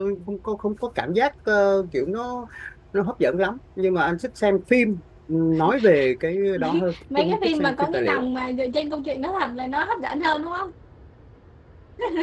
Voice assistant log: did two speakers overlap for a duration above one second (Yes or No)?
Yes